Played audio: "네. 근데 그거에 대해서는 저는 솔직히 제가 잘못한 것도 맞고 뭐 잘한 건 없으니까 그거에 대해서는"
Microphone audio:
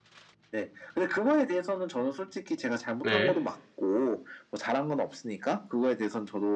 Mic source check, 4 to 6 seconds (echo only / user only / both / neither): echo only